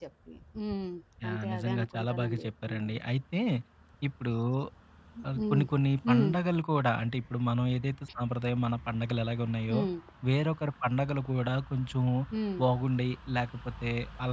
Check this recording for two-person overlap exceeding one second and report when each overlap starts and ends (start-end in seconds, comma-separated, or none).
1.3-3.0